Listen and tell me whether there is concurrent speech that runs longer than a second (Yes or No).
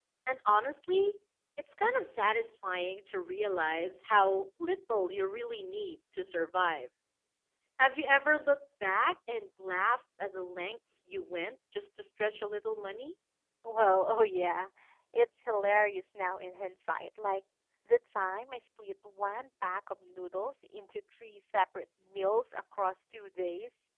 No